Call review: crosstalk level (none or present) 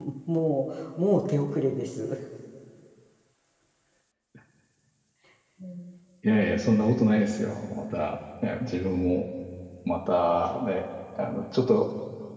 none